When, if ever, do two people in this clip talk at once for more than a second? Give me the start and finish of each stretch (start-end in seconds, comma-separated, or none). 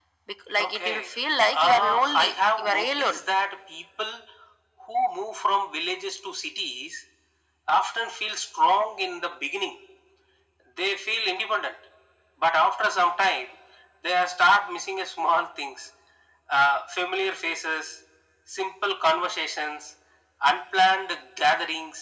1.6-3.2